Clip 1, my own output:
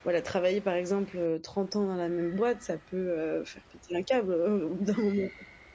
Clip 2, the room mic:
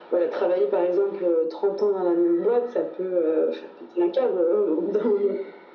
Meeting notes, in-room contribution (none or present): none